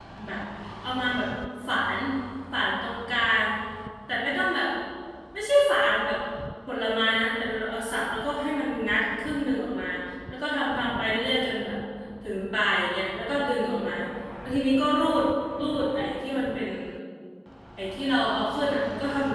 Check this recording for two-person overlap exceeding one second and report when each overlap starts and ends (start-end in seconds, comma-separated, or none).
none